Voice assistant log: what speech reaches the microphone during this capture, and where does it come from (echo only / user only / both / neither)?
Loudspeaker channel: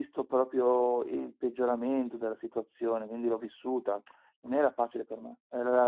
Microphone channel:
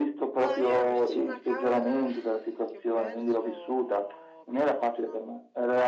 both